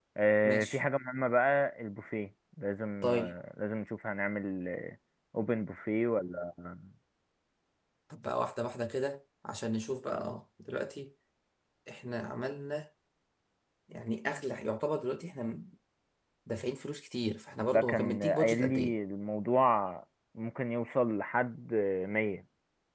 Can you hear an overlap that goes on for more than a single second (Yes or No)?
Yes